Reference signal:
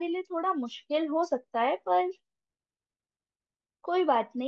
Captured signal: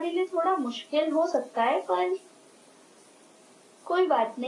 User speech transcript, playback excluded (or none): none